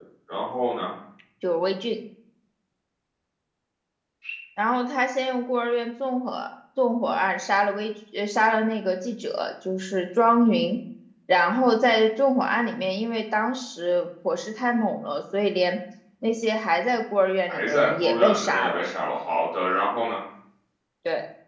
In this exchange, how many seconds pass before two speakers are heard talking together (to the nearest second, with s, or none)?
17 s